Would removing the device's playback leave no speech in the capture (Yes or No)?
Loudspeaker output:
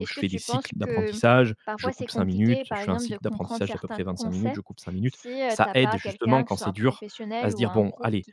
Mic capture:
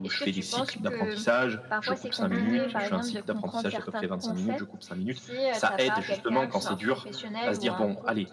No